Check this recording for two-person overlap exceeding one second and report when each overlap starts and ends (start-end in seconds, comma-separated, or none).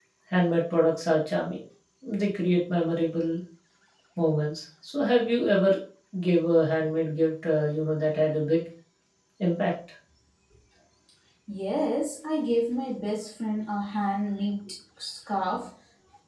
none